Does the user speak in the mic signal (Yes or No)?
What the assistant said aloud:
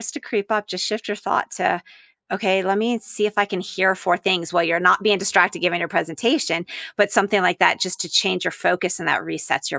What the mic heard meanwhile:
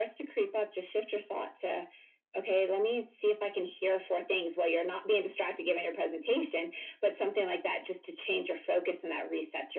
No